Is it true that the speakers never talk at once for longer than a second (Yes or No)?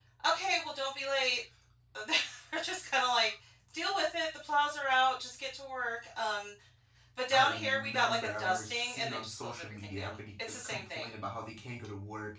No